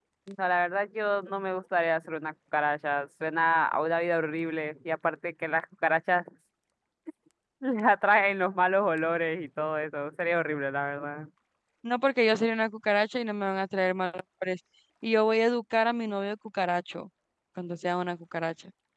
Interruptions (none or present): none